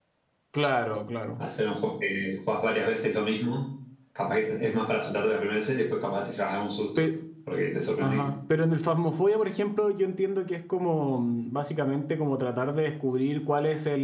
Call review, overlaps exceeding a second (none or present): none